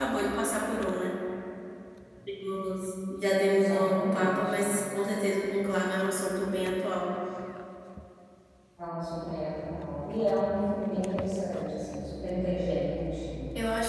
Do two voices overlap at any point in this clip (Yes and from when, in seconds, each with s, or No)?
Yes, from 3.4 s